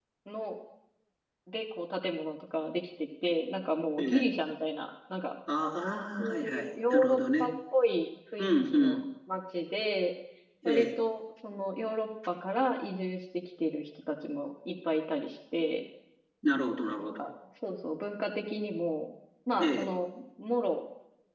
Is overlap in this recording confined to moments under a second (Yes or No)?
No